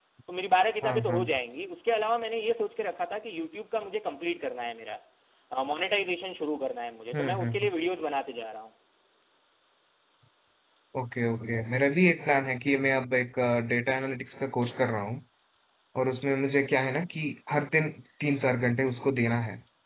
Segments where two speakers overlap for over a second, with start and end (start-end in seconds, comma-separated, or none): none